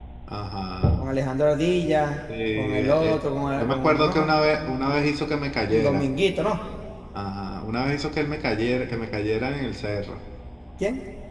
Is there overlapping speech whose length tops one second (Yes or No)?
Yes